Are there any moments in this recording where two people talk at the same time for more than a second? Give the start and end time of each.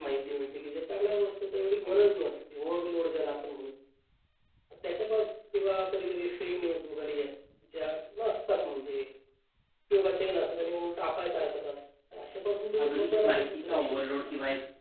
12.8-14.2

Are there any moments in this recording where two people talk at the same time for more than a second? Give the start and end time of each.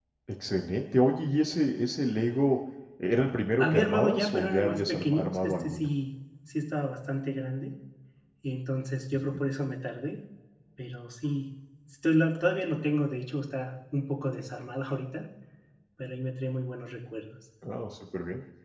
3.6-5.9

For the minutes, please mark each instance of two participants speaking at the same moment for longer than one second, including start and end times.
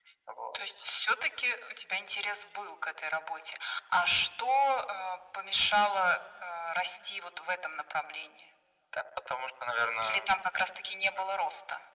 none

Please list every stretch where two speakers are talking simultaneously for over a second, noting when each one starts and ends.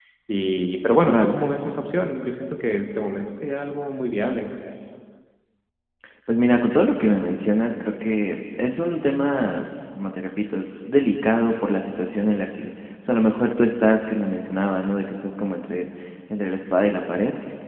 none

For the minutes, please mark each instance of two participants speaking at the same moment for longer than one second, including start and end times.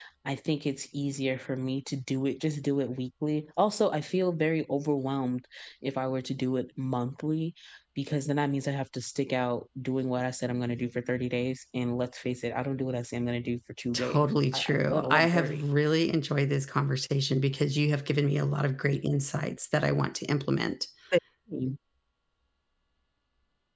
13.9-15.6

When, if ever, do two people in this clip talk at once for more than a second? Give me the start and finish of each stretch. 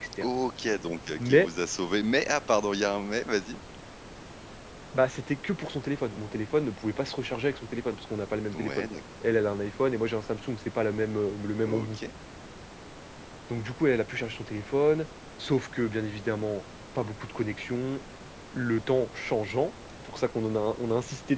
none

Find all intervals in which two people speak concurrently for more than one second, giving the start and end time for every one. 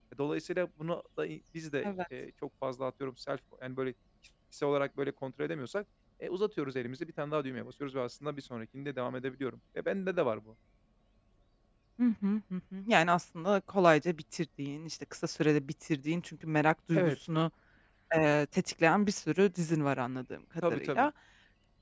none

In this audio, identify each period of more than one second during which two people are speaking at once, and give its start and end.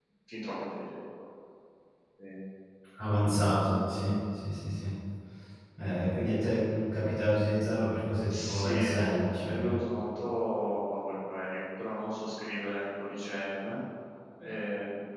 8.3-9.7

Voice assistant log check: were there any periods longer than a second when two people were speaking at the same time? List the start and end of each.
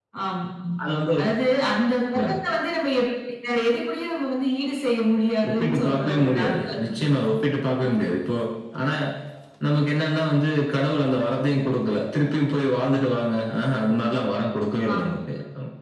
5.5-7.0

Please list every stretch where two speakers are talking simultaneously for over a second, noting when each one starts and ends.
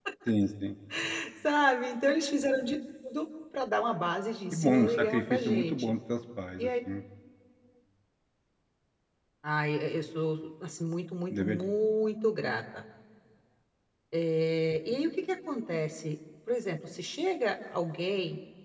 4.5-5.9

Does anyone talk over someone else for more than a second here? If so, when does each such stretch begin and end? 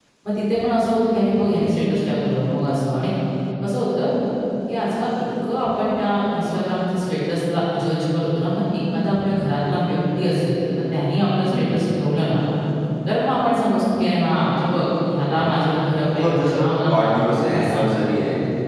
16.2-18.0

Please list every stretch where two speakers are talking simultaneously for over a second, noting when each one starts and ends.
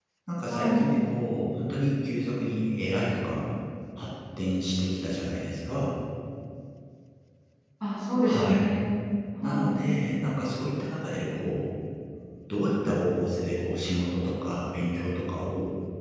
none

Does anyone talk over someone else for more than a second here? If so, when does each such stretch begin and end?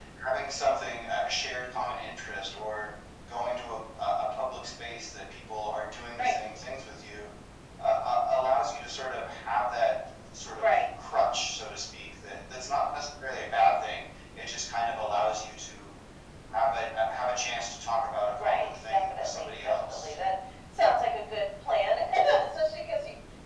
18.4-20.2

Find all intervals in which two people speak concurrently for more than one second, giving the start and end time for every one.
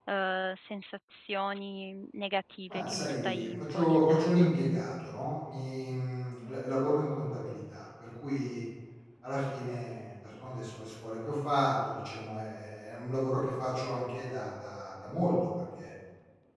2.7-4.5

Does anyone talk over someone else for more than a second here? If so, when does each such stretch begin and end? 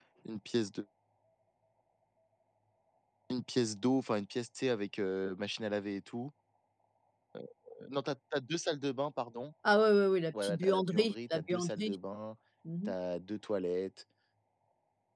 10.4-11.9

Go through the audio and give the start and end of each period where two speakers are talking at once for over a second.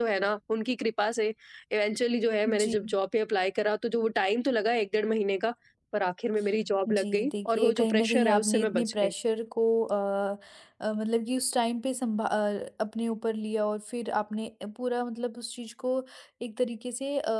6.9-9.1

